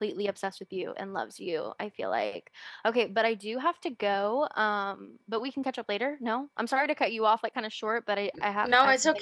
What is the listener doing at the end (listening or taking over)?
taking over